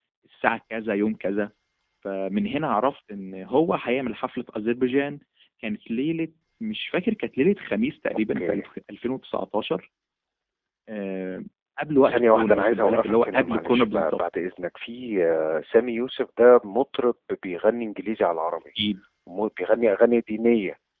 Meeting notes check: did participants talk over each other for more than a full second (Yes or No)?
Yes